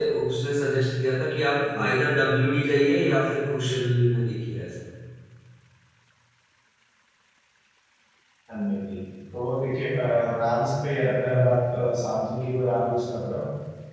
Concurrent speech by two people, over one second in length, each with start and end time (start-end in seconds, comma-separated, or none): none